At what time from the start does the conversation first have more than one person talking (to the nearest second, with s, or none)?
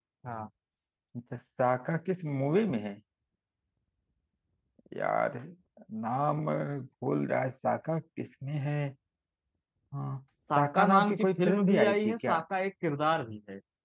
11 s